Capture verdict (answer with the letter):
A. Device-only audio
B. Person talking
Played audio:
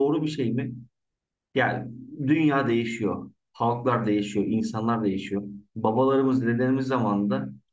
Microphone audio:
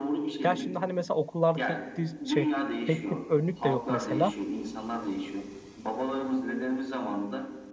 B